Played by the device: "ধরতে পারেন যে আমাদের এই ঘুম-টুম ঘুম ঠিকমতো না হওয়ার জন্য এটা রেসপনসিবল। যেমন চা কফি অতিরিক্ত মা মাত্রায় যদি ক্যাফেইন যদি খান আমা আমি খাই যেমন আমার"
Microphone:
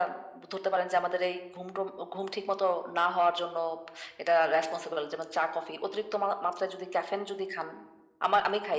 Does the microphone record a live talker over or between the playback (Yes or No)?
No